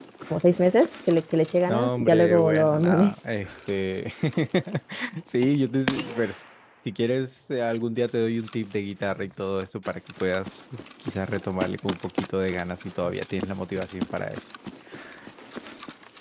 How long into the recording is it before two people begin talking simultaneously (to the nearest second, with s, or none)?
2 s